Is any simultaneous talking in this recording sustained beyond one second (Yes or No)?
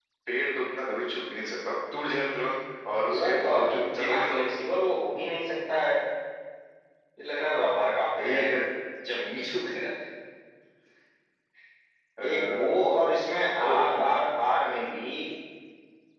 Yes